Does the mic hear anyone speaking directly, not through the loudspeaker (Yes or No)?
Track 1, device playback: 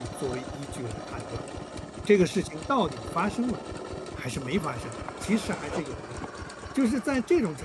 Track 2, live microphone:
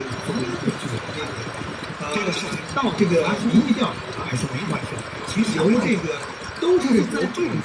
Yes